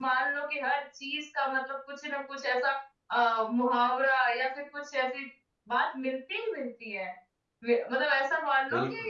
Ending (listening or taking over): listening